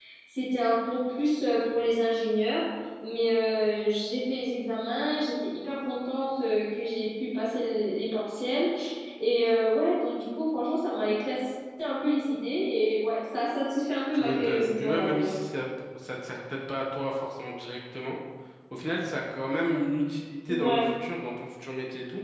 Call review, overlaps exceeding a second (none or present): present